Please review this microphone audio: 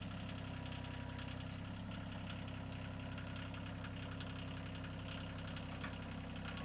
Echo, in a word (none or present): none